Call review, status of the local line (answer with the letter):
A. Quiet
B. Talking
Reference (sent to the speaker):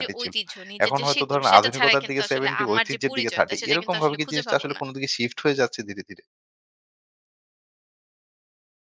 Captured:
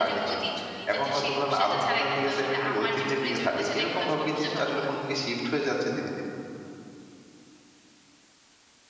A